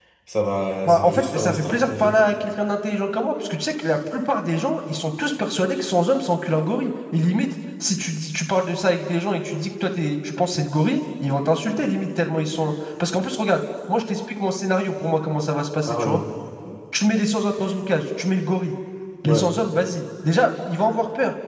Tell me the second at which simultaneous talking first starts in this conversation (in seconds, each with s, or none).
0.9 s